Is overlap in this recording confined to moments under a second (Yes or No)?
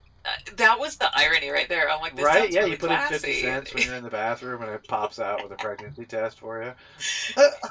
No